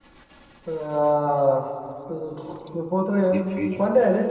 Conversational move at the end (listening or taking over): listening